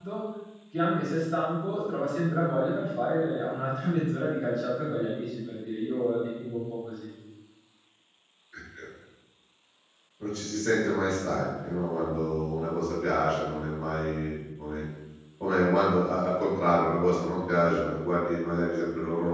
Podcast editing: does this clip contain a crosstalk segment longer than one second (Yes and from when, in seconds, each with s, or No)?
No